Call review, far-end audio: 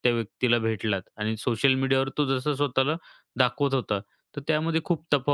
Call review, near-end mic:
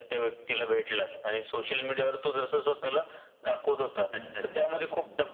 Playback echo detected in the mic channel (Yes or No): Yes